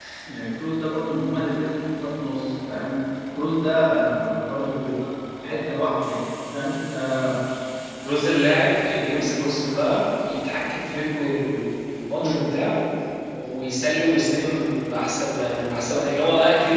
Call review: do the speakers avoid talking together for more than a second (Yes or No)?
Yes